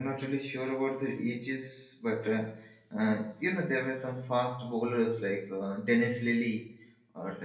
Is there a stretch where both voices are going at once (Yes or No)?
No